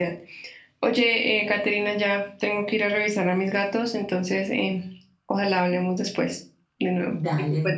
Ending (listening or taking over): taking over